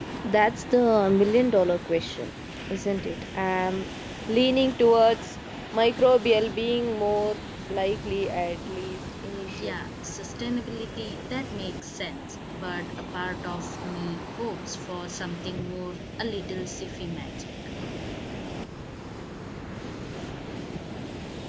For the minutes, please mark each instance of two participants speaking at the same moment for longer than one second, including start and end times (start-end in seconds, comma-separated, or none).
none